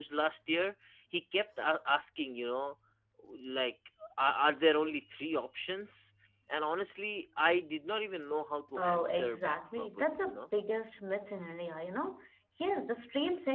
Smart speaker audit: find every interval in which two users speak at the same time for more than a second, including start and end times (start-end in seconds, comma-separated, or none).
8.8-10.4